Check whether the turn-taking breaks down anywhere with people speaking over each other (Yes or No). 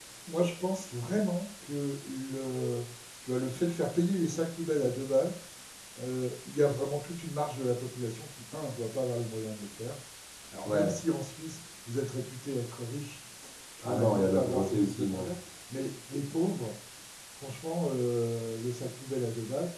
Yes